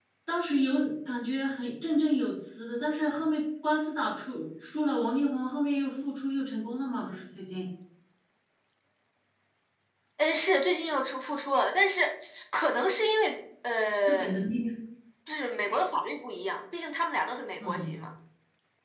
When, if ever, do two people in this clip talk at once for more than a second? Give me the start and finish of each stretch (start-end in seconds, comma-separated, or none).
none